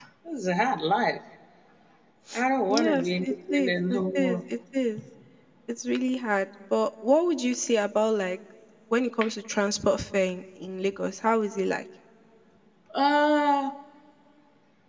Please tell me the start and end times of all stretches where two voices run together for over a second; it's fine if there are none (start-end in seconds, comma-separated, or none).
2.7-4.4